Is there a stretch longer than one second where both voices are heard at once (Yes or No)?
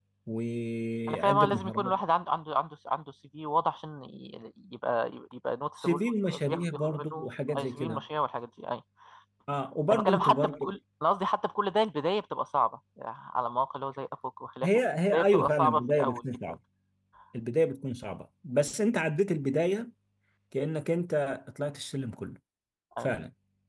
Yes